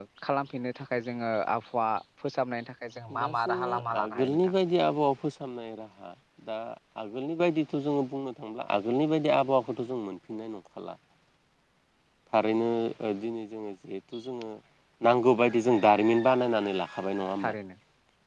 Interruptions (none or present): present